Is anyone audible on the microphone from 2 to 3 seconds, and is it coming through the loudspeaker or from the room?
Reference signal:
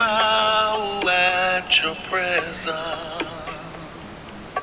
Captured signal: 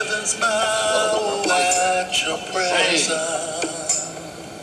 both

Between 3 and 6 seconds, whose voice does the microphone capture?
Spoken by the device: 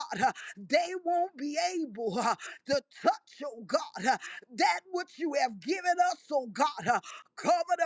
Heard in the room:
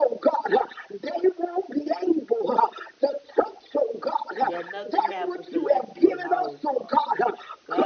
both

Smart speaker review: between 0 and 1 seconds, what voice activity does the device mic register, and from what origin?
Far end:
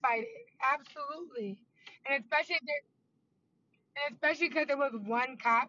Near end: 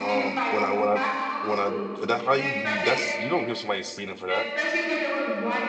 both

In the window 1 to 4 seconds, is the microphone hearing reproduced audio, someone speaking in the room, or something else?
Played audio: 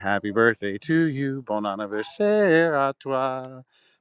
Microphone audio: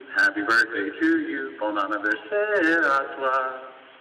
echo only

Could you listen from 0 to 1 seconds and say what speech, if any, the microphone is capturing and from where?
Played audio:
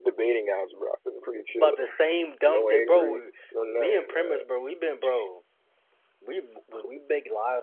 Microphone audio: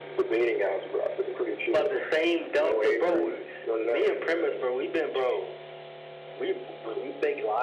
echo only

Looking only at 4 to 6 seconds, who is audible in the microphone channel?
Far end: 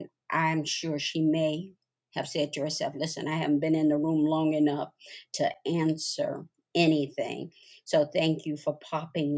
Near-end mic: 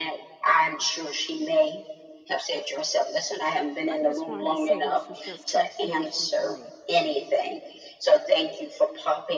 both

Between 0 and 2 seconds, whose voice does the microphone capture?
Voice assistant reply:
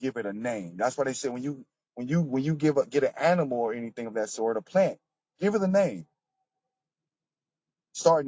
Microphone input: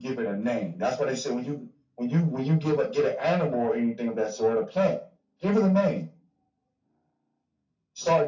echo only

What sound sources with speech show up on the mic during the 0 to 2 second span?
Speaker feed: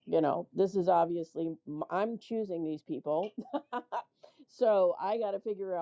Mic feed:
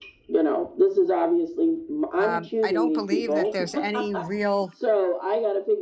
echo only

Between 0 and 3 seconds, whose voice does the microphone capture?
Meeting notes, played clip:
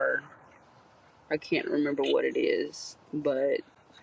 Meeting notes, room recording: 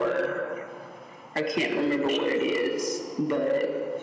echo only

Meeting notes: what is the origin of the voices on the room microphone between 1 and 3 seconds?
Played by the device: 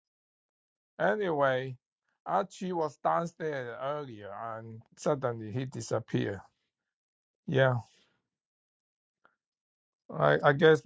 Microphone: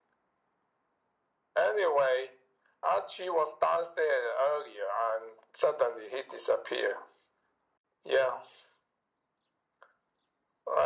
echo only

